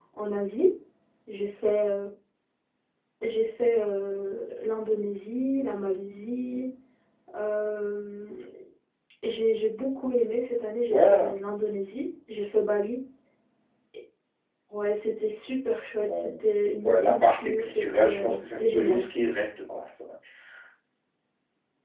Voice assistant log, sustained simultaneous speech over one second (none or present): present